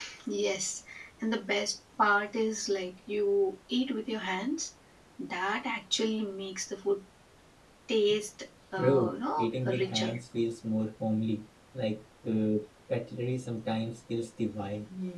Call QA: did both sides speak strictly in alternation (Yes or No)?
No